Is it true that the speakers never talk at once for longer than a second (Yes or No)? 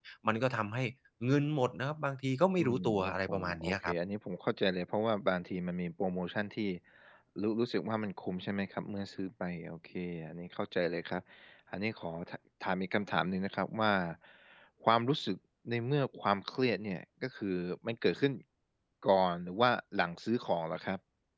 No